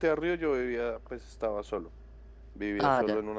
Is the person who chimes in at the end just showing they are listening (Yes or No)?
Yes